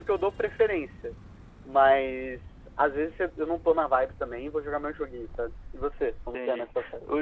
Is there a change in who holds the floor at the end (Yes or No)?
Yes